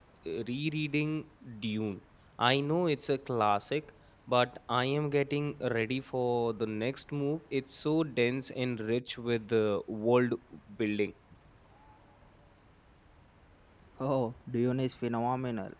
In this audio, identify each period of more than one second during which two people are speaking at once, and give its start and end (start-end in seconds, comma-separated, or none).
none